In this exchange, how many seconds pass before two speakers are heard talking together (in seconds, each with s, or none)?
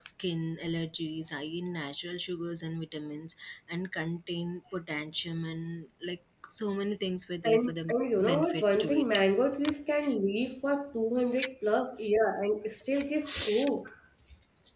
7.4 s